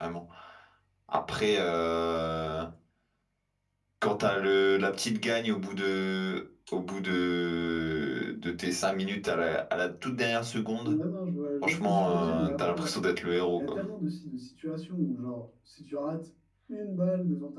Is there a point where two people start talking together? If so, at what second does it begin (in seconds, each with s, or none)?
11.6 s